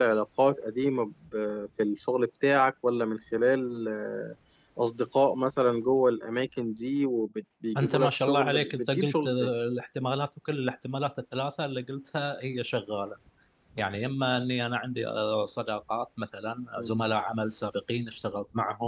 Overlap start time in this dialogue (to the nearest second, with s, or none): 8 s